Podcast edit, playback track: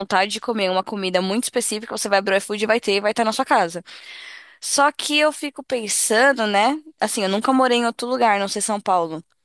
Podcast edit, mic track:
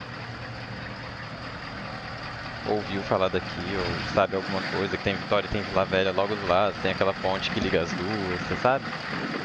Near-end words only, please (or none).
ouviu falar daqui ou sabe alguma coisa, que tem Vitória e tem Vila Velha logo do lado, tem aquela ponte que liga as duas, você sabe?